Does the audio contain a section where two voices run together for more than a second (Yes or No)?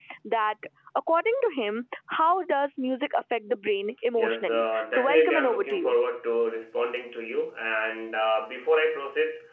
Yes